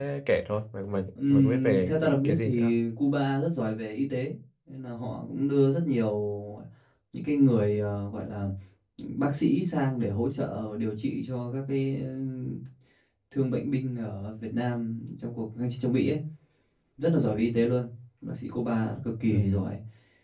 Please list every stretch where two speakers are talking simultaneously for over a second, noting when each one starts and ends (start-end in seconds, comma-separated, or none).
1.3-2.7